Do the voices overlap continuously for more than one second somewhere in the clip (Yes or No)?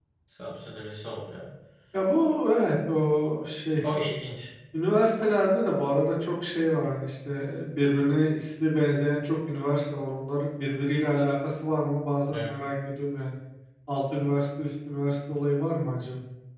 No